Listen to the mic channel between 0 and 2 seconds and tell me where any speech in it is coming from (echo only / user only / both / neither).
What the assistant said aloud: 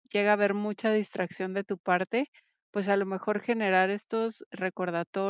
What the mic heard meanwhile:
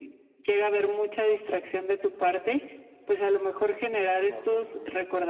echo only